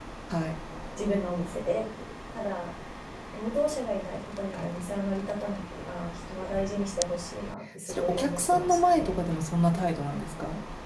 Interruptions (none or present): present